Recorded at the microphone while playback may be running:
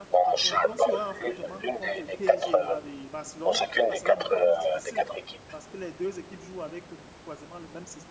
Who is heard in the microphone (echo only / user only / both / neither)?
both